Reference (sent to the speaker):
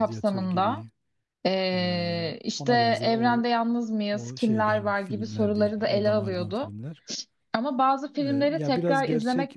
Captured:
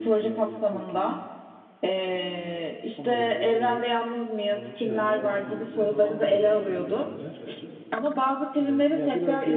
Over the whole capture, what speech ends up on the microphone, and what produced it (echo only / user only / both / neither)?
both